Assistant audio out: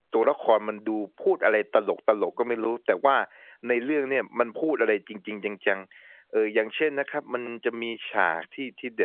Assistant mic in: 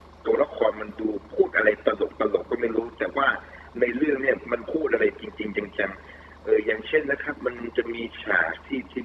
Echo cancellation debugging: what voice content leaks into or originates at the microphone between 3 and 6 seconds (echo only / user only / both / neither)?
echo only